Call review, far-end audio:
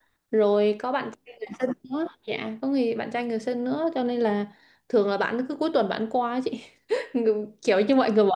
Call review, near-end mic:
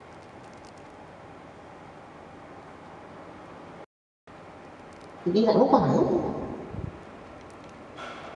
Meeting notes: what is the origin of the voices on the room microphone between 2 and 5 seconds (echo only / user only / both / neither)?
neither